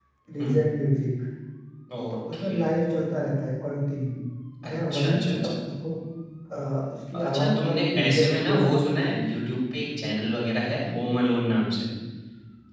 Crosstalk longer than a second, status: present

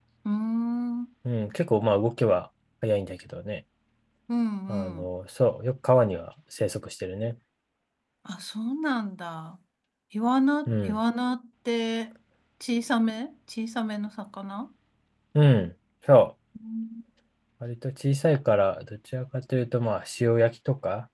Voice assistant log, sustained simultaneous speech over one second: none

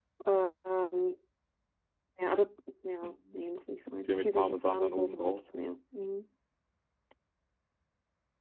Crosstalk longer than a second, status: present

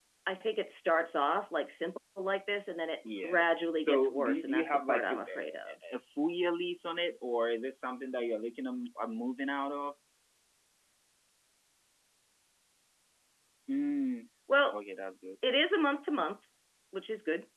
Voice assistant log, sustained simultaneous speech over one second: present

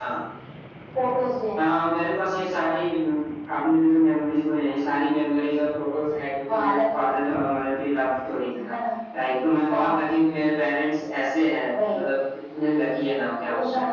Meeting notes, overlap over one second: none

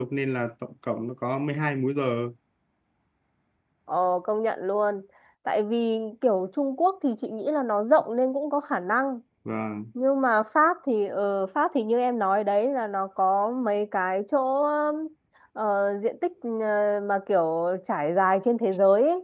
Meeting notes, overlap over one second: none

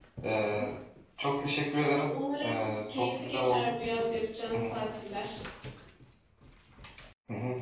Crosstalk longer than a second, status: present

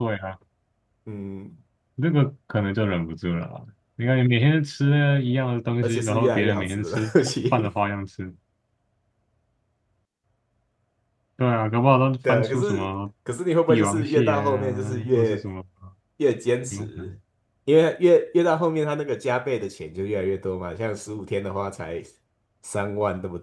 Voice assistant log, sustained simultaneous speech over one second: present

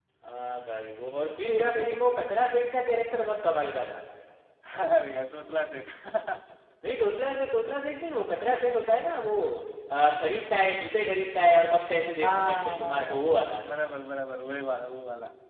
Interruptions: present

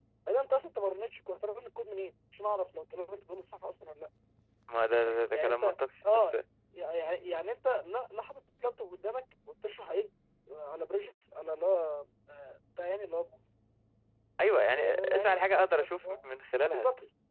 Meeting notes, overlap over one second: present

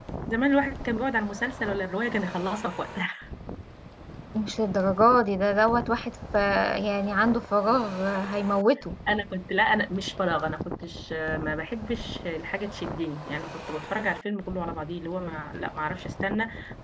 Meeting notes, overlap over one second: none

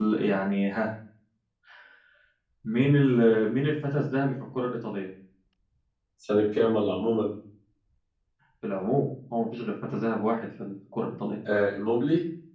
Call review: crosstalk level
none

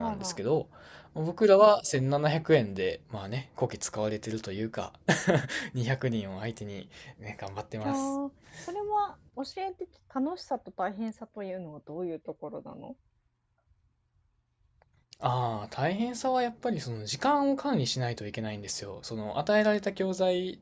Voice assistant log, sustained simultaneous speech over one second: none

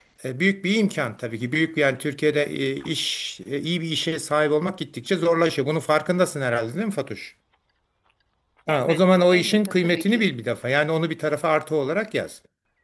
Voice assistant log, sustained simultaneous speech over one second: present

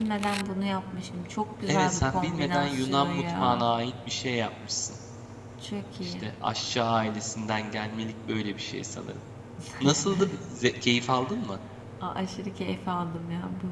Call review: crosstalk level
present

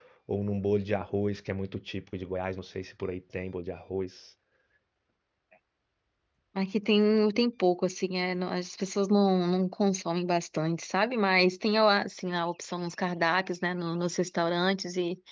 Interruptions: none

